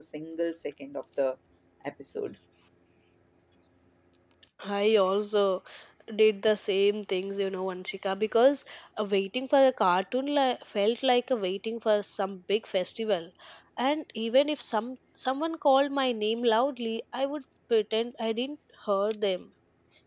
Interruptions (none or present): none